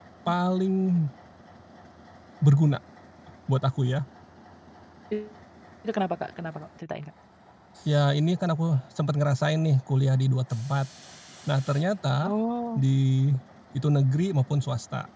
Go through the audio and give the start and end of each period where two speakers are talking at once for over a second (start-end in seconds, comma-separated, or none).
none